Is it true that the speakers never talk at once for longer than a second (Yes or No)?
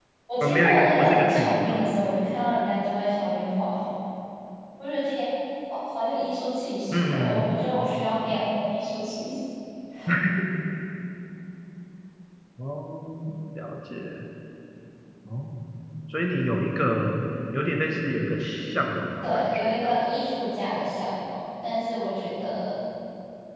No